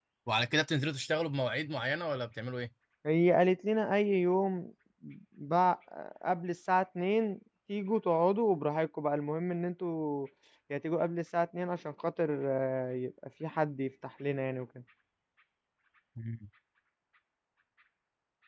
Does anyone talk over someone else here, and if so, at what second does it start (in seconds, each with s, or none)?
none